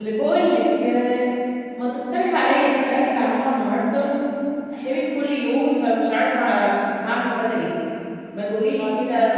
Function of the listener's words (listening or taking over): listening